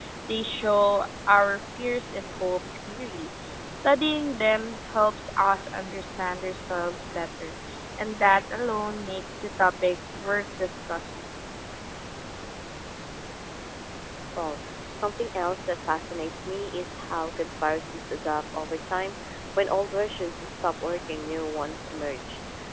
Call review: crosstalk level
none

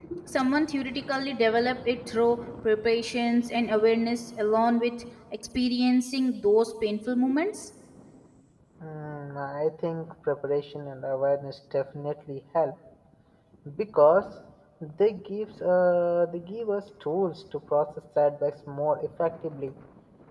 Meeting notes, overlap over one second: none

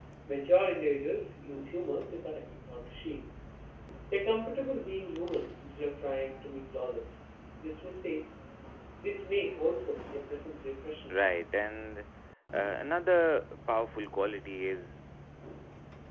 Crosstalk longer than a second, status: none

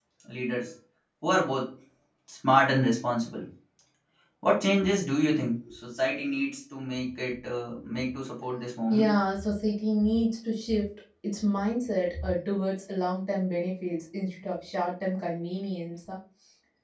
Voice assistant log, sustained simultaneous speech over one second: none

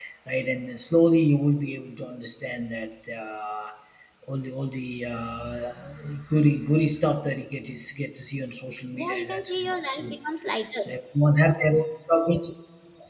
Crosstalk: present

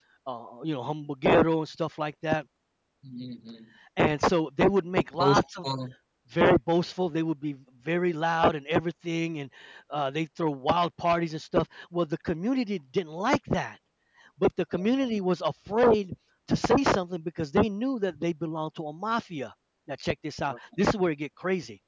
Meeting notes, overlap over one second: none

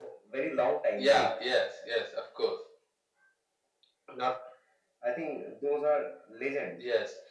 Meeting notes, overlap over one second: none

